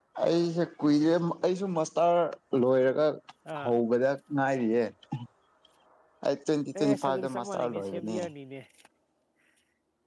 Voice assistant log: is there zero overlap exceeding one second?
No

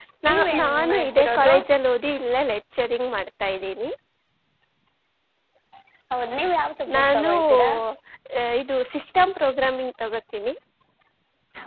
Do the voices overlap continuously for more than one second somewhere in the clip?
Yes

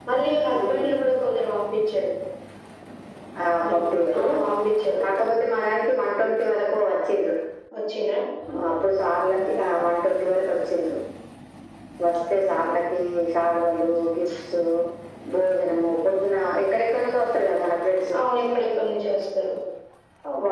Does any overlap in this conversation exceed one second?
No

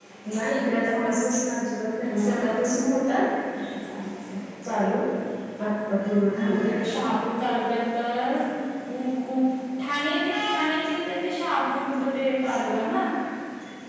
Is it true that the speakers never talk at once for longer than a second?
Yes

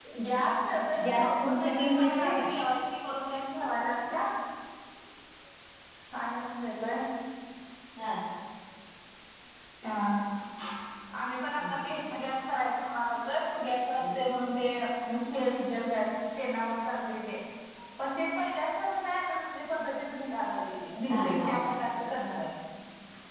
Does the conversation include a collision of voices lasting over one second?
Yes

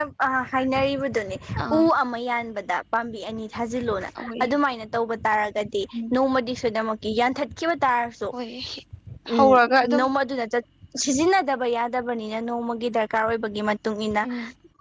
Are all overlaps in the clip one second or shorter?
Yes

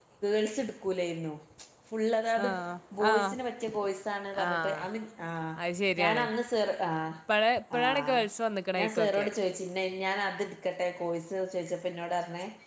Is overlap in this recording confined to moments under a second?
Yes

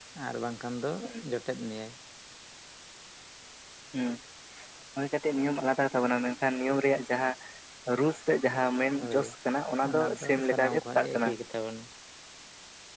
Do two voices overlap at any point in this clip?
Yes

